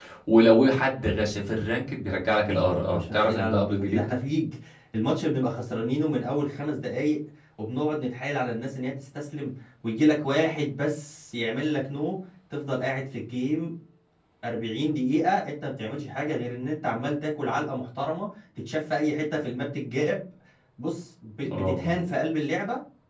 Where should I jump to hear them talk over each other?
2 s

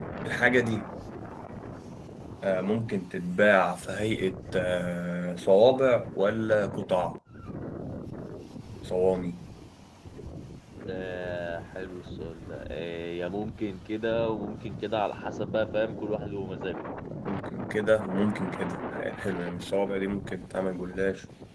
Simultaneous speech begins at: none

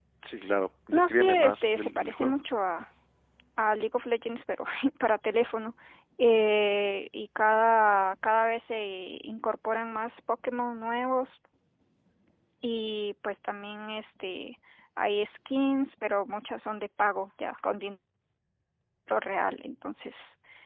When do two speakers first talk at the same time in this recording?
1 s

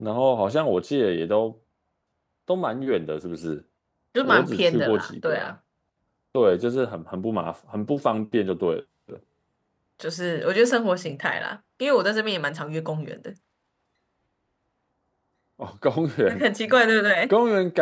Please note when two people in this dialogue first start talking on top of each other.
4 s

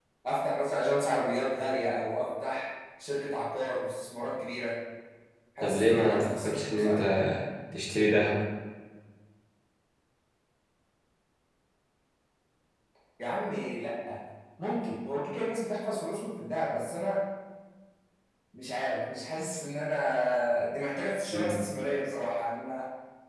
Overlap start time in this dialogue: 6 s

